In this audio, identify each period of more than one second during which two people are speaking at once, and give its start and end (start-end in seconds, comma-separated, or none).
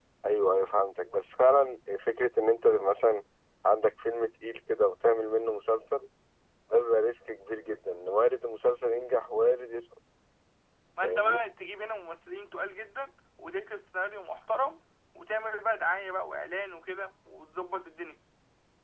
none